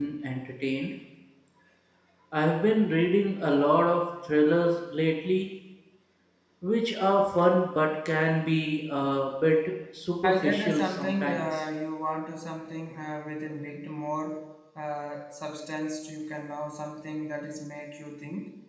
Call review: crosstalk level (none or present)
present